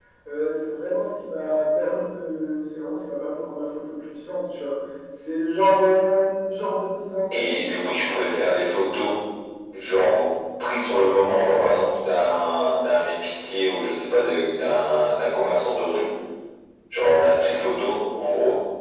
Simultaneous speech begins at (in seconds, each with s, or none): 7.3 s